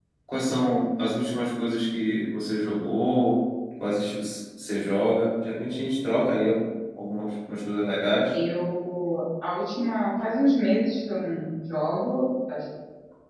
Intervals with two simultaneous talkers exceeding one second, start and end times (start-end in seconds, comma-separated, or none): none